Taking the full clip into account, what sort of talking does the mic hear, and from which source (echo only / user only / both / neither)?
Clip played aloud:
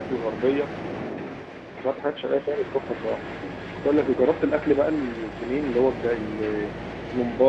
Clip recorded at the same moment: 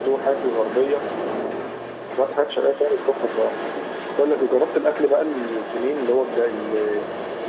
echo only